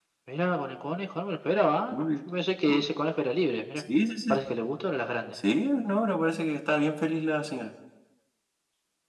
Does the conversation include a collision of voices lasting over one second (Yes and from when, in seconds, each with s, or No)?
No